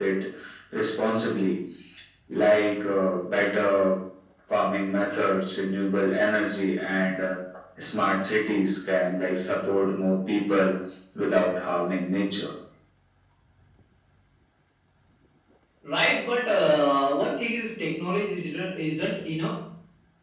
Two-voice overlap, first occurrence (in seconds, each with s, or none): none